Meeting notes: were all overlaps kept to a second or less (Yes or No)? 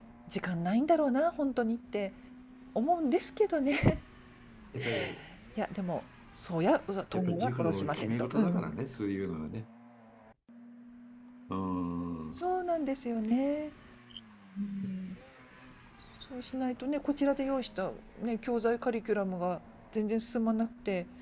No